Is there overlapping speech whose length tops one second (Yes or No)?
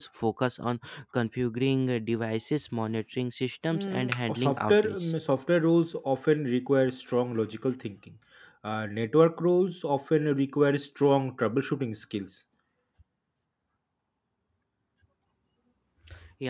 Yes